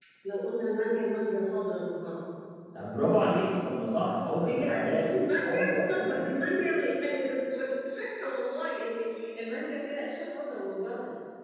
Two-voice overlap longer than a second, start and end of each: 4.4-6.5

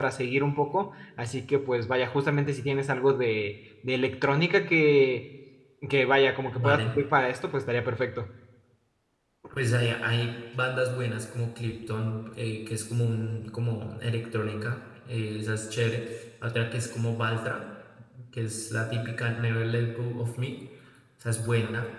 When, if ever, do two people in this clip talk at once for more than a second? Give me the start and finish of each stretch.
none

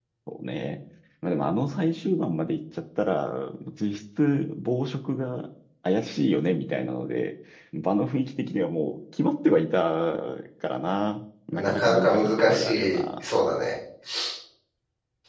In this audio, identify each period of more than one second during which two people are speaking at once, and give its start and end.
11.5-13.0

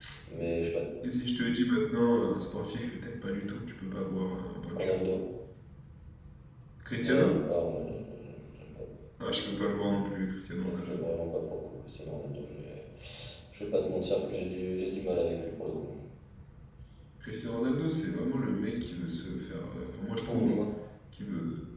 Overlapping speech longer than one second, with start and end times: none

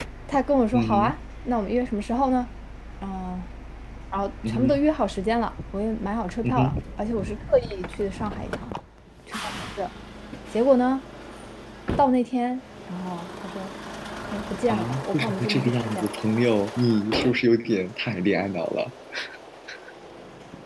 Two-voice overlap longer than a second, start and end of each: 14.7-16.1

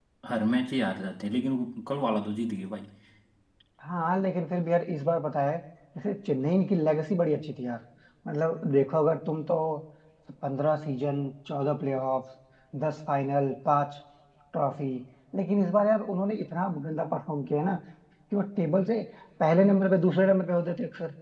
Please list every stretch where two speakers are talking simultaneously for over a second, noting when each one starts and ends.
none

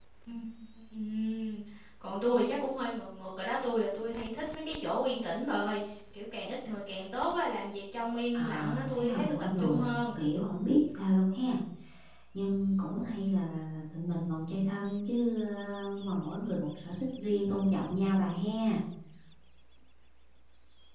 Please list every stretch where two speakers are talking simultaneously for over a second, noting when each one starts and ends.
8.3-10.2

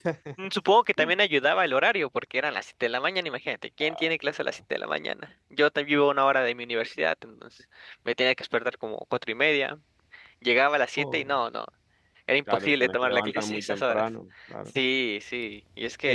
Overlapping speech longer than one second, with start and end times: 12.5-14.0

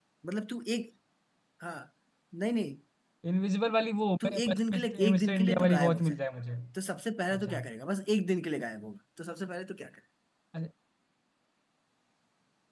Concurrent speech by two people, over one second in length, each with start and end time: 4.2-6.1

